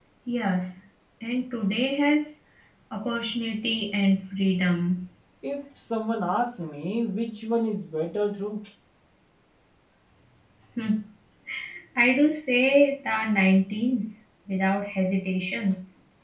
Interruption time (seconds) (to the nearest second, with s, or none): none